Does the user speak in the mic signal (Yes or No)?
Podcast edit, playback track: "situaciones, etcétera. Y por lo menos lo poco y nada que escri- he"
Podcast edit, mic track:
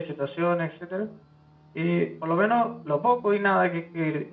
No